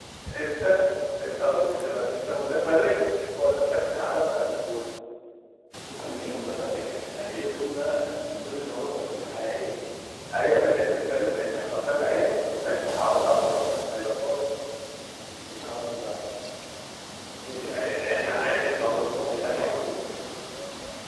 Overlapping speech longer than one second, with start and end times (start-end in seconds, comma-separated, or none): 17.5-19.7